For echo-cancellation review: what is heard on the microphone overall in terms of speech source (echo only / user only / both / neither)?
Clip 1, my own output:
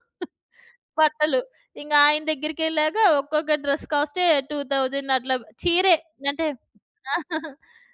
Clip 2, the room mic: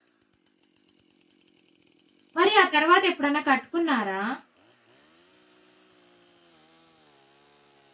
user only